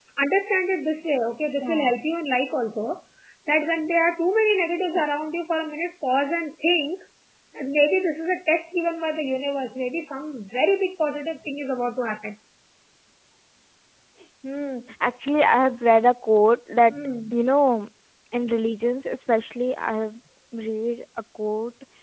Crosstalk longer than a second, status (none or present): none